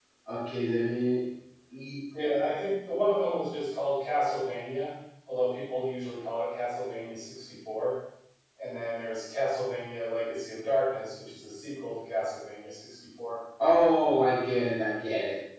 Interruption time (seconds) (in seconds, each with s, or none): none